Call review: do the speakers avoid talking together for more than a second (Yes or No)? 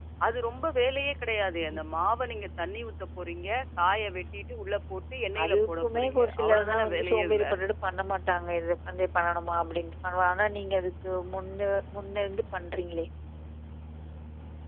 No